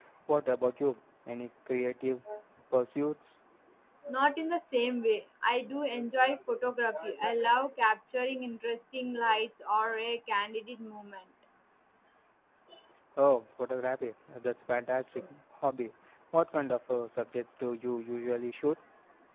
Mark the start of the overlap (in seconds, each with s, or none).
none